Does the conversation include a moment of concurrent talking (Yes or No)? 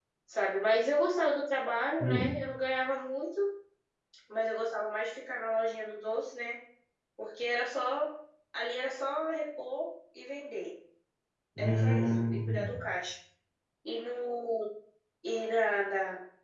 Yes